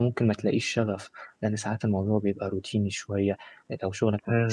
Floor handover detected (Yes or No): No